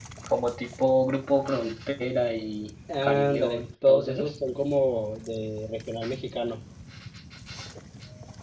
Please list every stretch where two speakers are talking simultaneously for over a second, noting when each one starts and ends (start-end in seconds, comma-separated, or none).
3.0-4.3